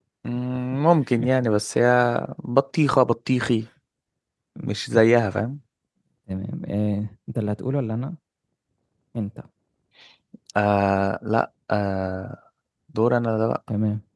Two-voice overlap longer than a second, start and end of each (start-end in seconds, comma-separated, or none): none